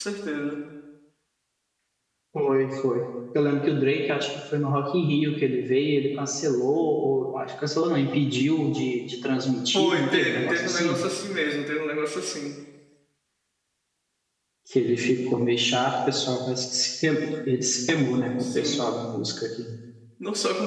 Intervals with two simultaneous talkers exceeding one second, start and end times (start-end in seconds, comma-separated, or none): 9.7-11.0